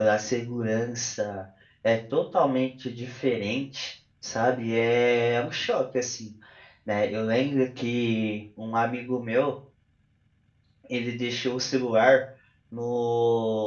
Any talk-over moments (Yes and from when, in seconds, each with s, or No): No